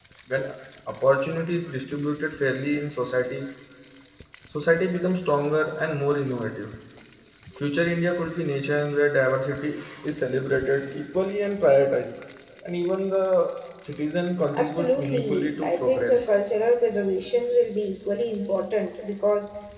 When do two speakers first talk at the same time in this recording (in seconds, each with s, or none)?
14.6 s